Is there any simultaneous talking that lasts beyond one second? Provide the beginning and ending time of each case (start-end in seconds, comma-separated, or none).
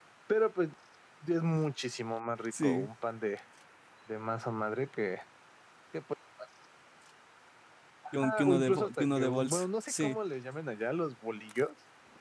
8.2-10.2